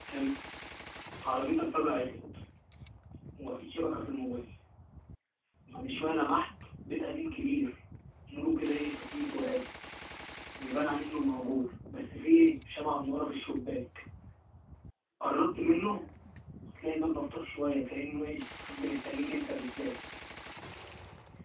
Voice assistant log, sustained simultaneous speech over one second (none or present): none